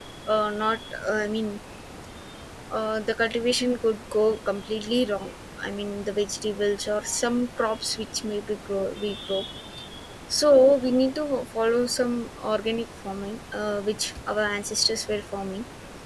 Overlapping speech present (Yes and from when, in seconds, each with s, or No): No